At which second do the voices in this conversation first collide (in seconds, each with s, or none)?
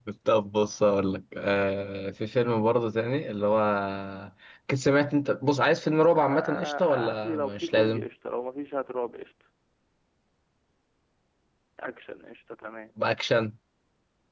6.1 s